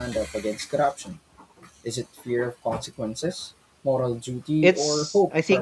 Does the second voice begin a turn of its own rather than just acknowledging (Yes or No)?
Yes